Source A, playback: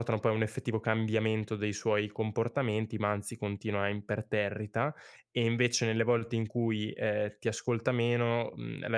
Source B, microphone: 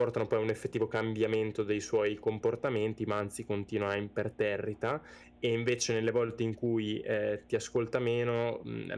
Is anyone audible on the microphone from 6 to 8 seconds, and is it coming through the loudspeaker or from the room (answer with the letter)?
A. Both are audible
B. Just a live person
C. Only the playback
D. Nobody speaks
C